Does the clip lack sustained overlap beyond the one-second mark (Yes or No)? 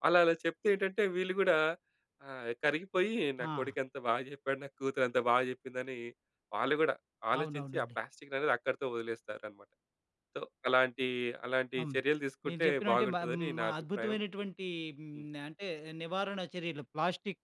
No